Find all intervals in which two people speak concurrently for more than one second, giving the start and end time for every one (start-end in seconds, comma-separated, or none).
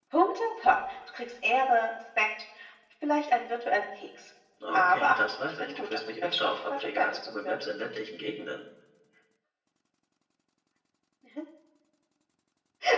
4.7-7.6